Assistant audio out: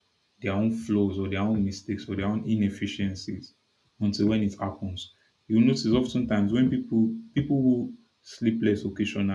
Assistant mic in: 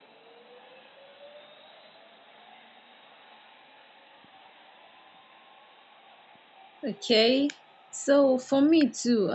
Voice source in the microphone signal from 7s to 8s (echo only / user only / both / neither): user only